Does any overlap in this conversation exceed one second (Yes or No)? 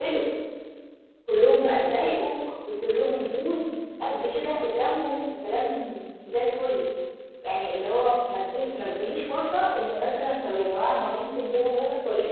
No